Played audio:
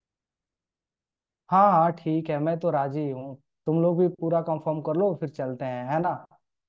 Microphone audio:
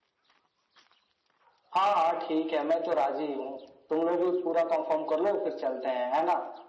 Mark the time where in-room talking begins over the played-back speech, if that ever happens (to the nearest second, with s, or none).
none